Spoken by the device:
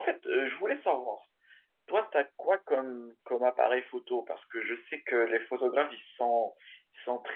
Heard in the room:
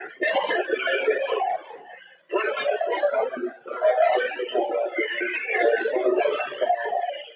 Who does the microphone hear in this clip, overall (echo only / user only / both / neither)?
echo only